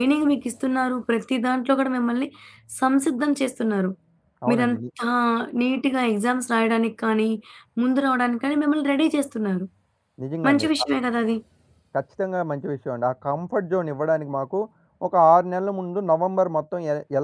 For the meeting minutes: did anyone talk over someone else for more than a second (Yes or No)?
No